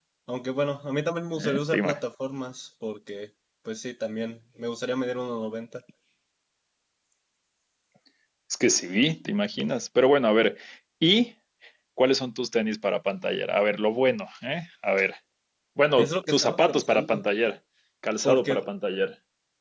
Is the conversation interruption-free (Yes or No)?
No